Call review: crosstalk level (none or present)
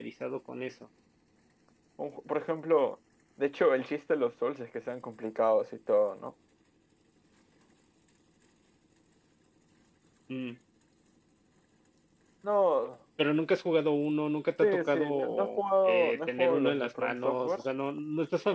present